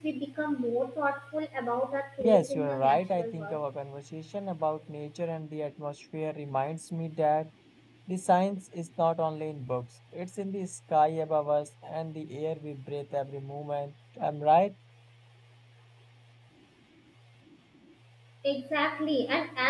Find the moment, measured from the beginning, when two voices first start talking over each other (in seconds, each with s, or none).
2.2 s